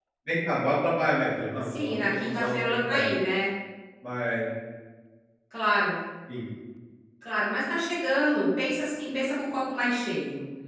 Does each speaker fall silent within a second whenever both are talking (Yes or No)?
No